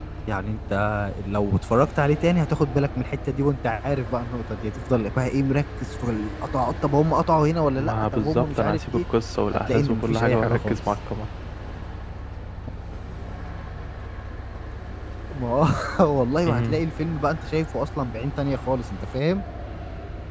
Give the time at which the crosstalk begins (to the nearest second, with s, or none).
8 s